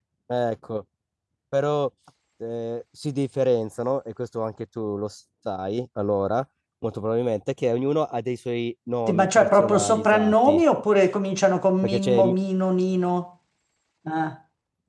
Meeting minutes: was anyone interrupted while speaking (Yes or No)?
Yes